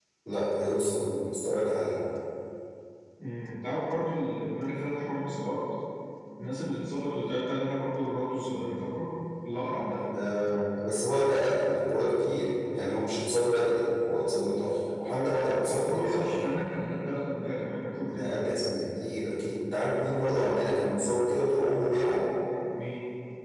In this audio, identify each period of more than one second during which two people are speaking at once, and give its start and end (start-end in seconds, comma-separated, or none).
15.1-16.5